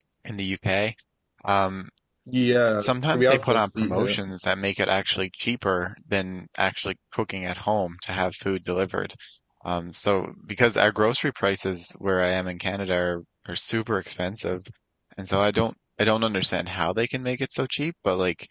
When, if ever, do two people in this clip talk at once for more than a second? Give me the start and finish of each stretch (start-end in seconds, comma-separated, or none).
2.8-4.2